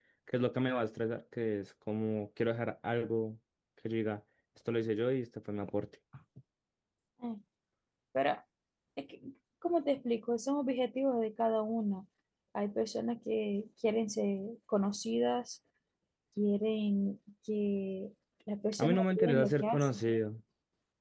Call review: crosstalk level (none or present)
present